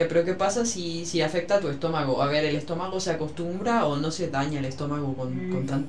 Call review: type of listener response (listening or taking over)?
taking over